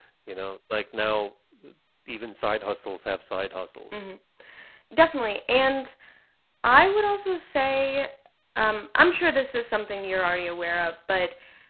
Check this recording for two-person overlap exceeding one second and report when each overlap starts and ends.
none

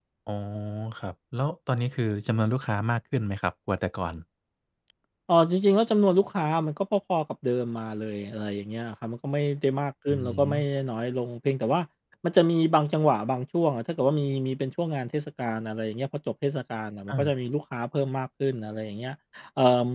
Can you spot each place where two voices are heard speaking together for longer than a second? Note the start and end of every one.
none

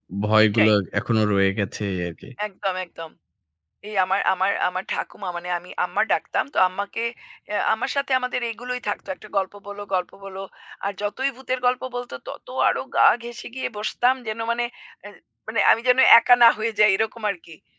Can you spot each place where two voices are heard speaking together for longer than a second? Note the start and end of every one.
none

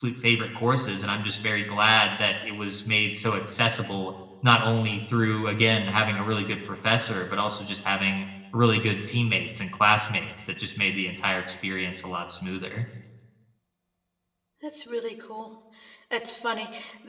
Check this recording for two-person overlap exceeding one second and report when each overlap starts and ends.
none

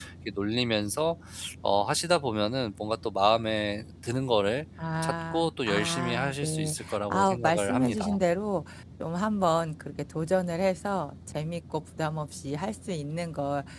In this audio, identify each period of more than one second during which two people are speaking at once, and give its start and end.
5.0-8.1

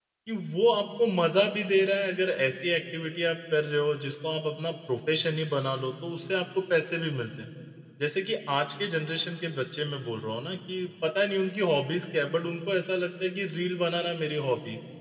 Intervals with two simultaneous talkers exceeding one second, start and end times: none

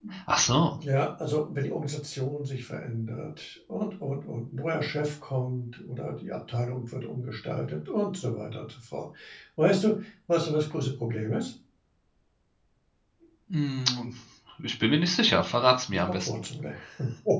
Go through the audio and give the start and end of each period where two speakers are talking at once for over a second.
none

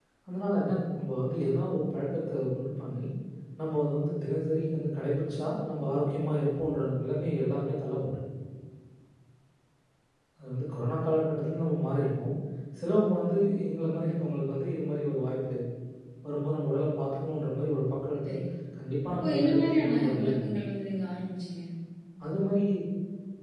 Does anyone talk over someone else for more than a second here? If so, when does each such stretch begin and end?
19.2-20.6

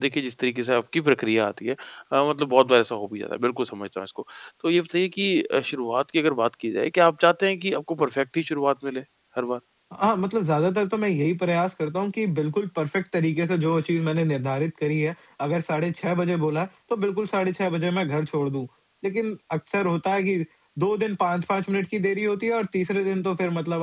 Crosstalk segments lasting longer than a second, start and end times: none

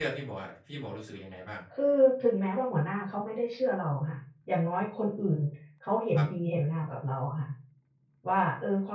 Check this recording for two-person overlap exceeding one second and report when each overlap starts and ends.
none

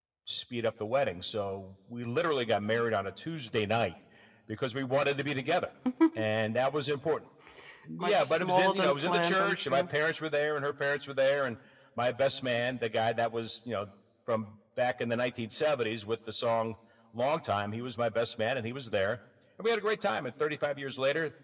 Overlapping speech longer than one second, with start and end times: 8.0-9.8

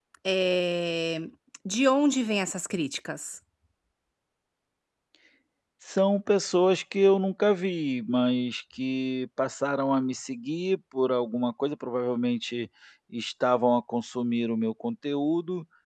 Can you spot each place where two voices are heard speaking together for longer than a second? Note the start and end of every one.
none

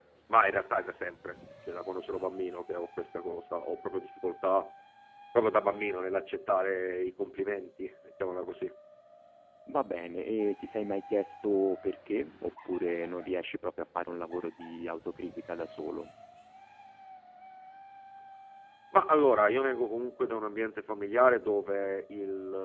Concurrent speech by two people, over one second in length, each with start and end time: none

